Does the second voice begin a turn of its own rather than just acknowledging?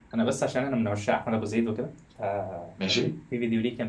No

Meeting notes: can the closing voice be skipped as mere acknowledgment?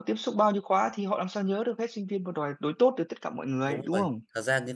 No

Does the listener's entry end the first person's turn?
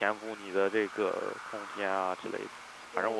No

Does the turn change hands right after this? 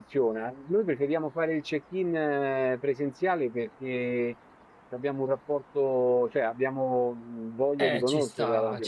Yes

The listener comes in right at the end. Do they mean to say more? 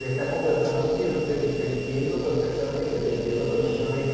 Yes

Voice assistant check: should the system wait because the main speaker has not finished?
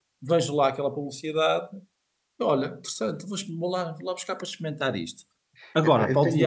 No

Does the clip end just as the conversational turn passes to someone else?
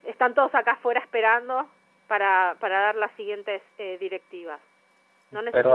Yes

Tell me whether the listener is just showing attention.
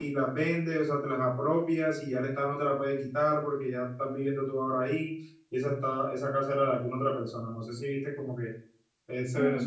No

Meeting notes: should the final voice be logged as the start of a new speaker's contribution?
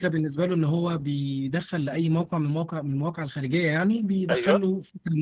No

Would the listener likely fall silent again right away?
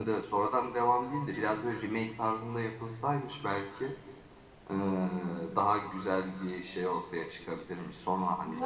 No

